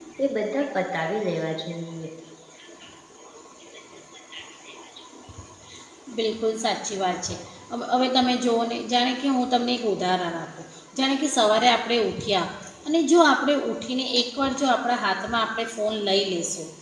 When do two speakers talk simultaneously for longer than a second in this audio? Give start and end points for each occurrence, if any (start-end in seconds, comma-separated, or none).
none